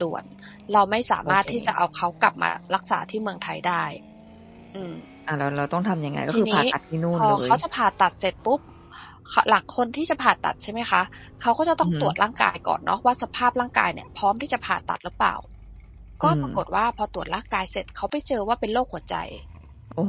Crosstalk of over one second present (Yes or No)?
No